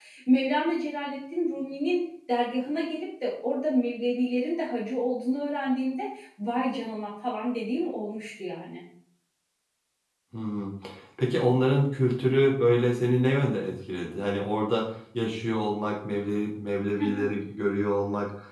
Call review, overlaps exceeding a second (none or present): none